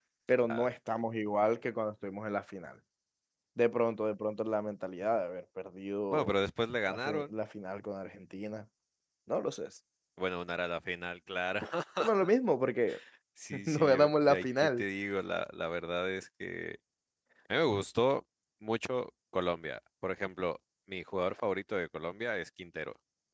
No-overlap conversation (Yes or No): No